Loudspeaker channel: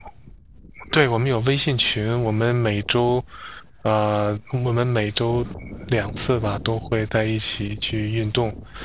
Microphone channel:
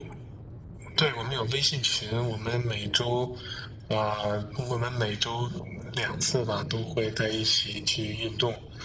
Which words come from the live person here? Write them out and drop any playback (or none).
none